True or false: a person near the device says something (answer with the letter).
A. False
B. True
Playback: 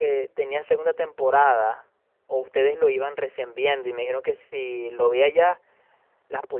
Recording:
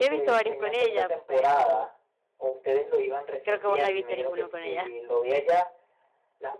B